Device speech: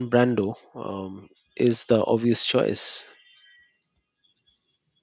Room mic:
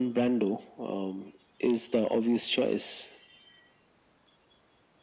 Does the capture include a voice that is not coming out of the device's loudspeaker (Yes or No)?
No